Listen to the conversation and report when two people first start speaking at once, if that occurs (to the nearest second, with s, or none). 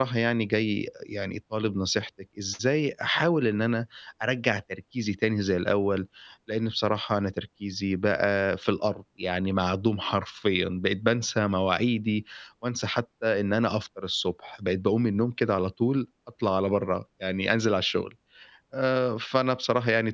none